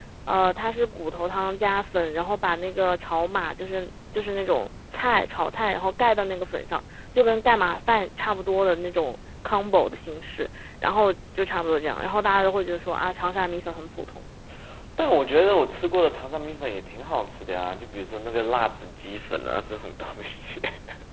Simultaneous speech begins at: none

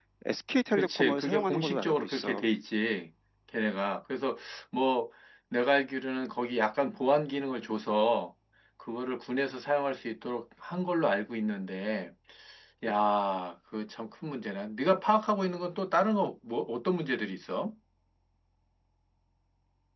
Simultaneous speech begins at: 1 s

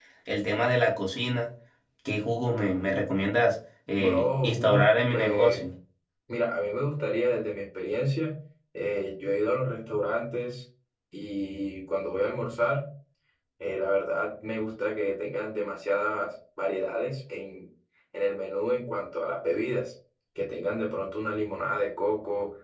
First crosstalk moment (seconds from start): 4 s

